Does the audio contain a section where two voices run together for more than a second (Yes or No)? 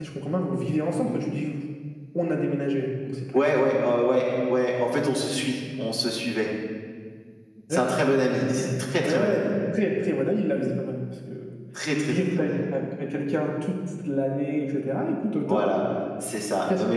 Yes